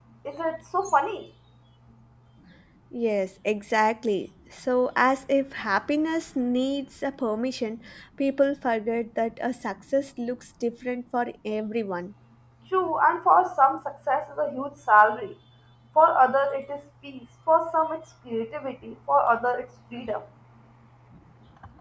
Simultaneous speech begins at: none

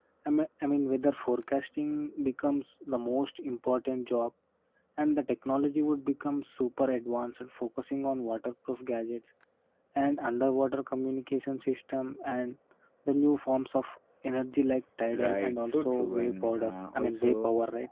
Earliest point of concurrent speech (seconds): 15 s

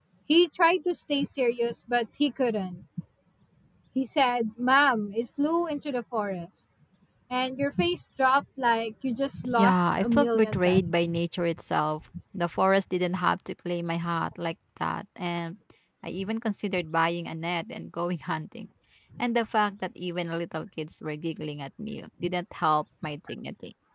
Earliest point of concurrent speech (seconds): 10 s

